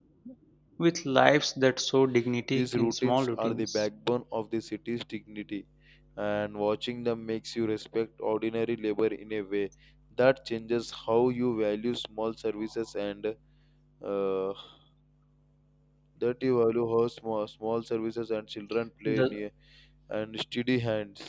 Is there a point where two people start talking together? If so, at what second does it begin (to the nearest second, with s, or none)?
3 s